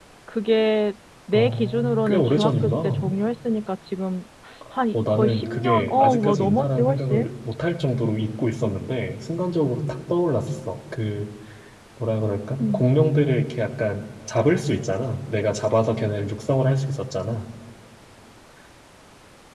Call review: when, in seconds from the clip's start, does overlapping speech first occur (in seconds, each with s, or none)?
1.3 s